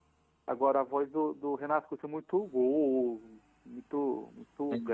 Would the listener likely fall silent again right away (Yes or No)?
Yes